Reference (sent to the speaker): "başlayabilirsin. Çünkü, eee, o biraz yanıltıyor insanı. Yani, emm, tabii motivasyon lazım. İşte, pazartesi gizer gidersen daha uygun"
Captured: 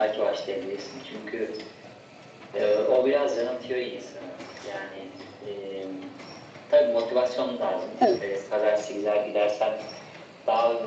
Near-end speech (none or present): present